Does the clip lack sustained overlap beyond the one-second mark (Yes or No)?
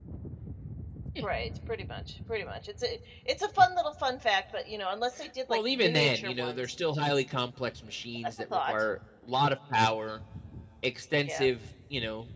No